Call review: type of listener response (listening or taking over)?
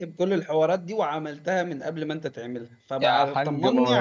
taking over